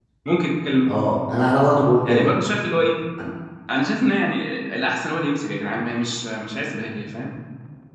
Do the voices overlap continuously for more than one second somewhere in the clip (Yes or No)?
No